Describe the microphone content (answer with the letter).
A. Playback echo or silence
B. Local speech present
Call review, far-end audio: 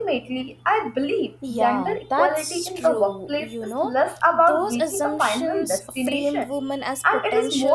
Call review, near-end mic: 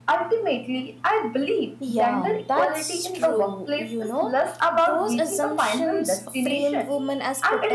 A